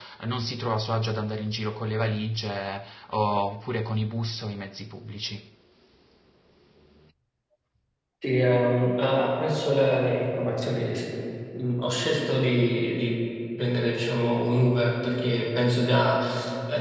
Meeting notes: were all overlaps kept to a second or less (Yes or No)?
Yes